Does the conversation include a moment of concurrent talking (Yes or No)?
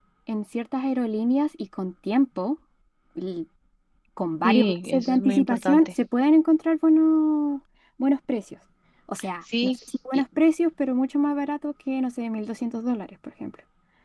Yes